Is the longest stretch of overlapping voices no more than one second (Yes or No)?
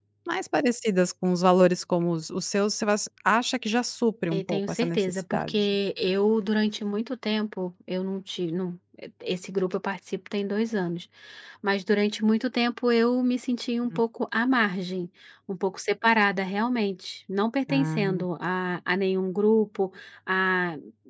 No